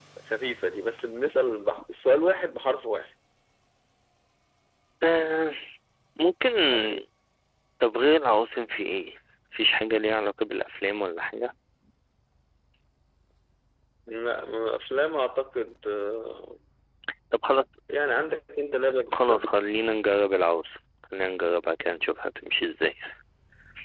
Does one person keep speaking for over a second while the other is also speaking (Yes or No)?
No